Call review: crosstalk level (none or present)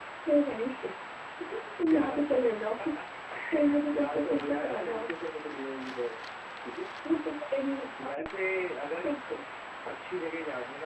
present